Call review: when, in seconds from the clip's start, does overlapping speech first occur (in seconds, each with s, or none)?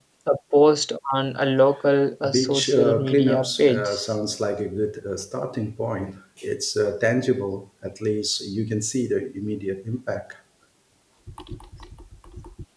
2.2 s